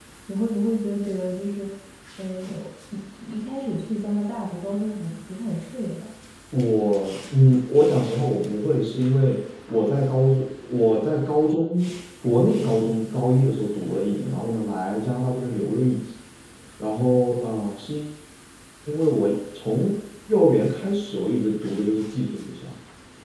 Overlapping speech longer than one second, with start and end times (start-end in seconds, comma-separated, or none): none